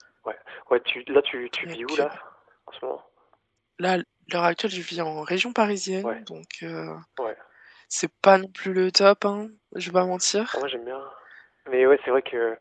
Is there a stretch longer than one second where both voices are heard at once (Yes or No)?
No